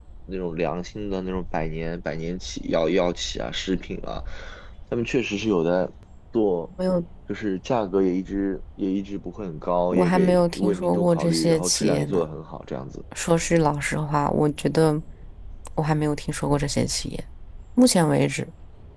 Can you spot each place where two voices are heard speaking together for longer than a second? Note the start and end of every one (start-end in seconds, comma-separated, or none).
9.9-12.2